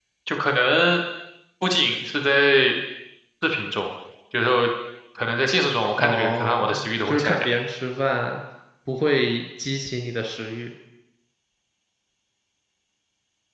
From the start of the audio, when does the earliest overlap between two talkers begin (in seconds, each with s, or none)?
6.0 s